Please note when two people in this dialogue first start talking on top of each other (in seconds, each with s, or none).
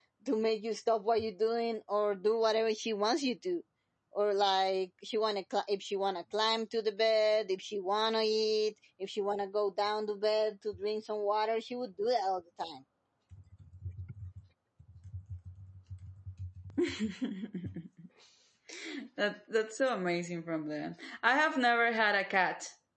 none